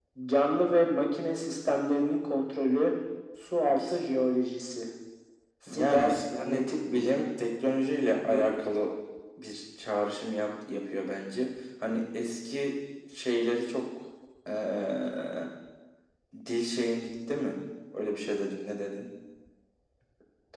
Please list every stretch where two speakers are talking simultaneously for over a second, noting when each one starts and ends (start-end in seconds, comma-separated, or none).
5.7-7.2